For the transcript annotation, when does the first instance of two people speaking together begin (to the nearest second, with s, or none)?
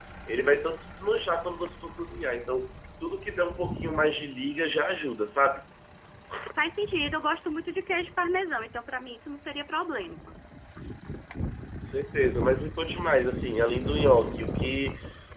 3 s